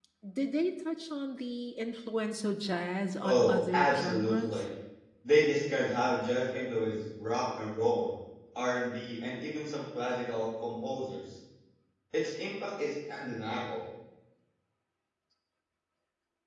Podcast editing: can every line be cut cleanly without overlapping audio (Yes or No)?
No